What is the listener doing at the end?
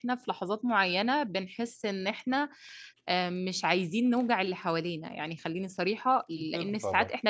listening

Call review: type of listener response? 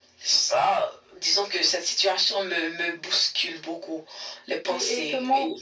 taking over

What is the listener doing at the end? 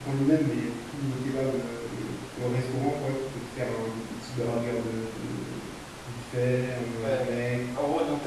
taking over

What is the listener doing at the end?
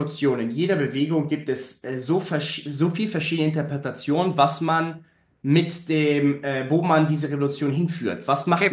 taking over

